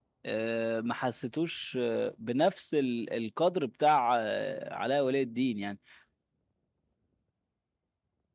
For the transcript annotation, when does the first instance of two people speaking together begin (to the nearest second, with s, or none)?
none